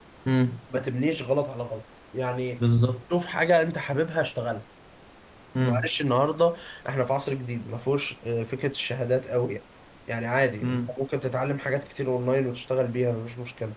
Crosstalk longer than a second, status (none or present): none